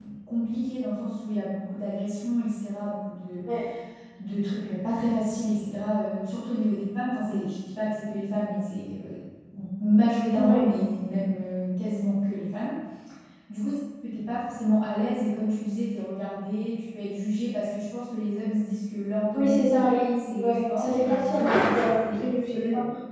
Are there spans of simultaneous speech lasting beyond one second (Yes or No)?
Yes